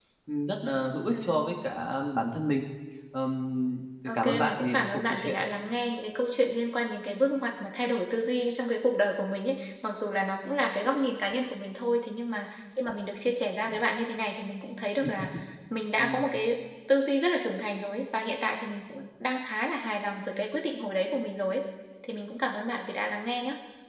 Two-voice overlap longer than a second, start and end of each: 4.1-5.4

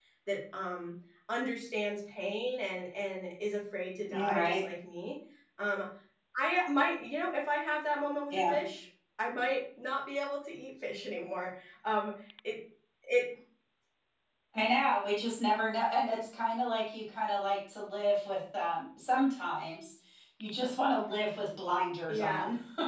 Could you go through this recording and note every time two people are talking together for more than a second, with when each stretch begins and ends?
none

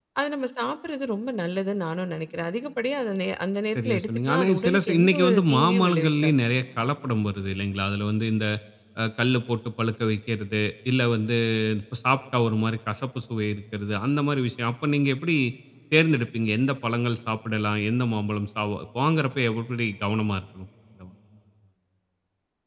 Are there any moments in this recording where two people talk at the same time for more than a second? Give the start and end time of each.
3.8-6.3

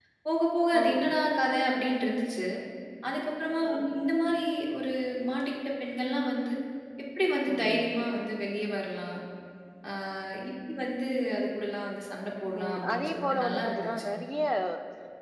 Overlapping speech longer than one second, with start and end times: 12.6-14.0

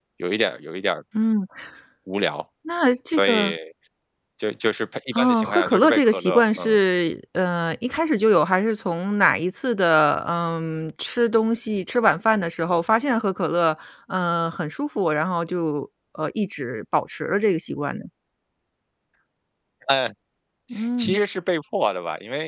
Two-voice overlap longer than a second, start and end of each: 5.1-6.8

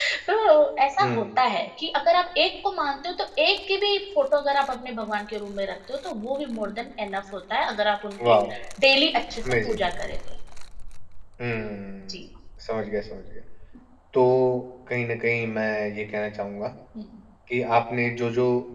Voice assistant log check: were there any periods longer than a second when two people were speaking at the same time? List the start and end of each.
none

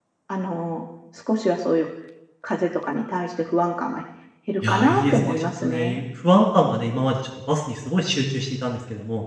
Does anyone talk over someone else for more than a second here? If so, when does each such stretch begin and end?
4.7-6.0

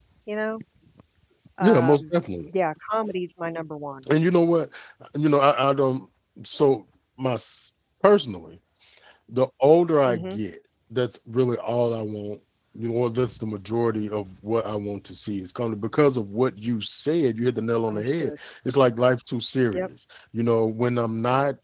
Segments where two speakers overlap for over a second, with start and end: none

